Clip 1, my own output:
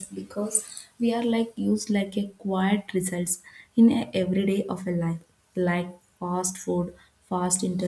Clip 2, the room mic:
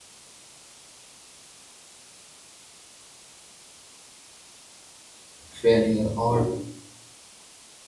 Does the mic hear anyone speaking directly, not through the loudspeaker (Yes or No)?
Yes